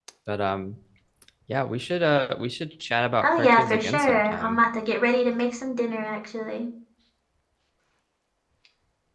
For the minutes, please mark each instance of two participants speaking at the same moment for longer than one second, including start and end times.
3.2-4.6

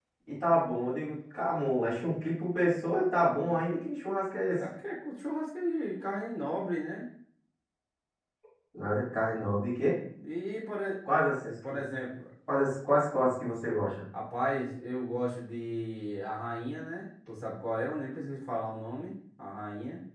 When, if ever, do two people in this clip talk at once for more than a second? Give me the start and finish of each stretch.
none

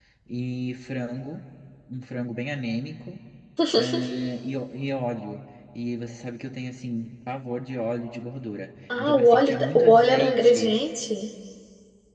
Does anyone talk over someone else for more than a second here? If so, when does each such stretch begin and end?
9.0-10.7

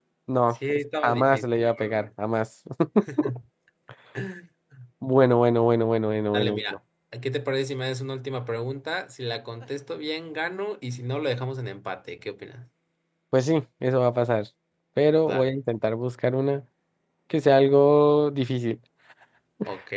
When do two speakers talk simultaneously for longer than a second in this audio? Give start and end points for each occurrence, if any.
0.5-2.0

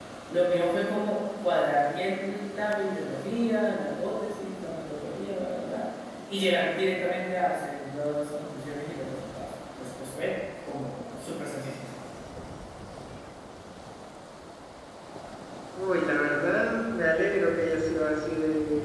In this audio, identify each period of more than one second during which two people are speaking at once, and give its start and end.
none

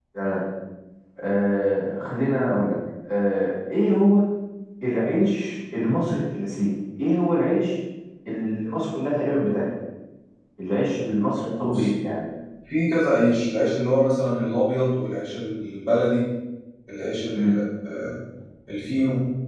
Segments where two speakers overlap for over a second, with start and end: none

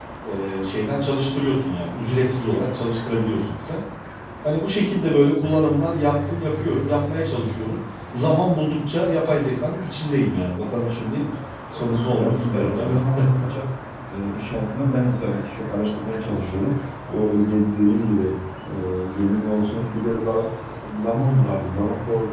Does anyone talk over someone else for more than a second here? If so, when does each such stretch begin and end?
11.7-13.0

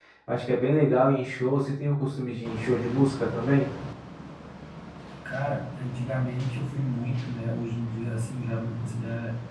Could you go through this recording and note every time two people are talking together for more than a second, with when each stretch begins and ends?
none

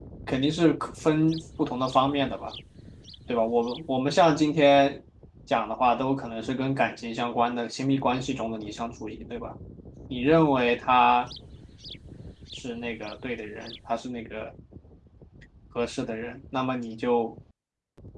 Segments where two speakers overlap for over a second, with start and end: none

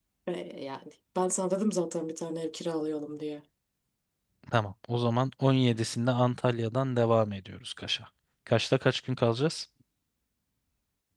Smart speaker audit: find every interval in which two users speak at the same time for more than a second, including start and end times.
none

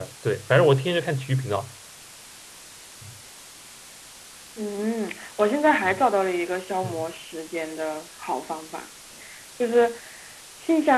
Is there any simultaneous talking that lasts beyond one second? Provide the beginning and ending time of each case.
none

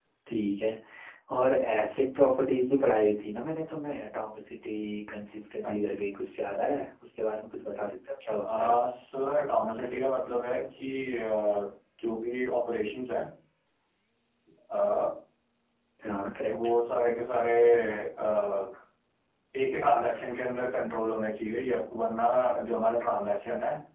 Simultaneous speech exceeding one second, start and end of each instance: none

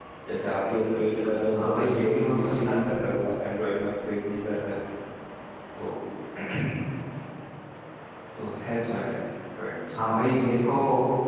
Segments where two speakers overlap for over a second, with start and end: 1.5-2.8

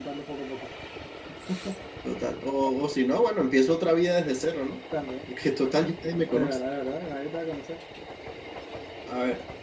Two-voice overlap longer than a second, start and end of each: none

